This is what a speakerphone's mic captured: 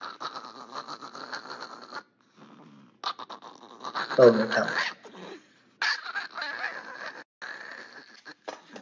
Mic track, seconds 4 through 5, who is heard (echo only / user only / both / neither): user only